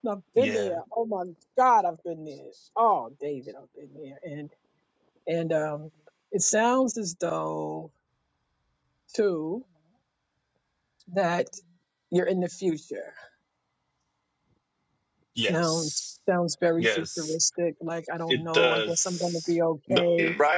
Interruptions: present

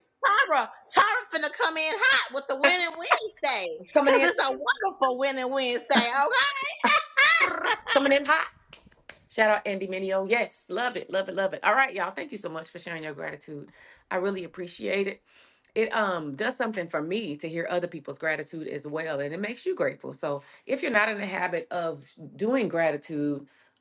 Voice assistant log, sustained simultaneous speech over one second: none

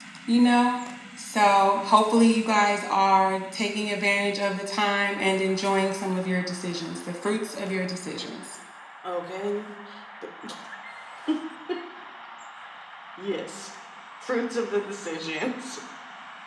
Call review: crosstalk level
none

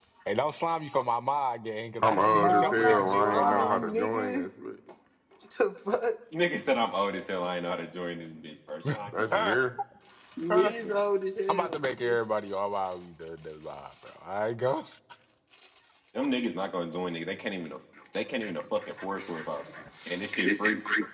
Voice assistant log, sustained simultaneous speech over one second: present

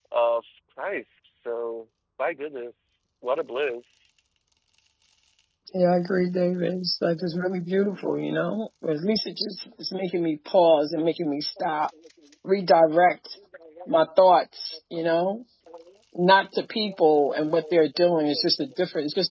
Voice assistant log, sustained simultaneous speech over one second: none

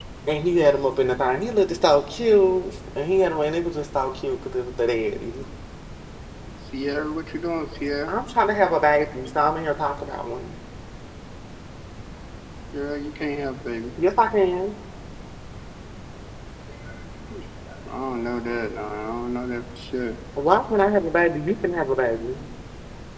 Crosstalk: none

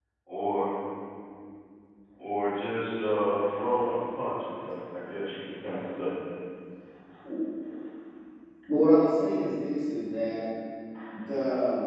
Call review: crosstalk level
none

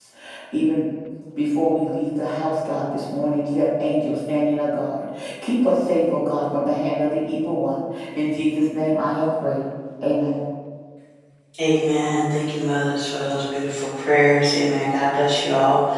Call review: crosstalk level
none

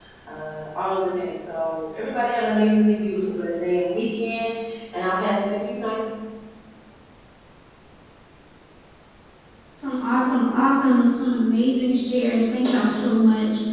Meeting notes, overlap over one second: none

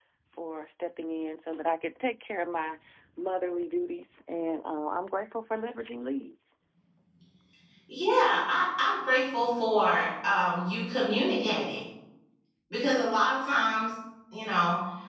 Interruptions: none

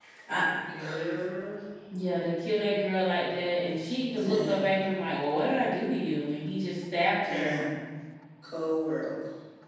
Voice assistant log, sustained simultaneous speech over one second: none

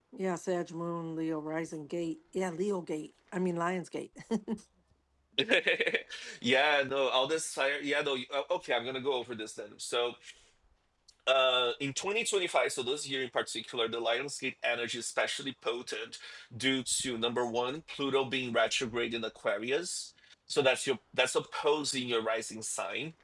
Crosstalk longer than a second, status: none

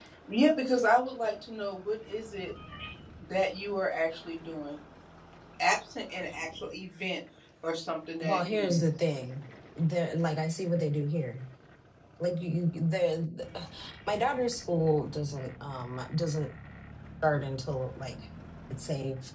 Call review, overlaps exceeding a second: none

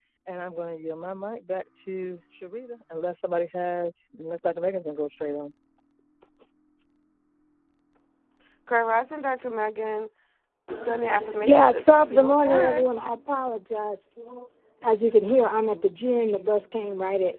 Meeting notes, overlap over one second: present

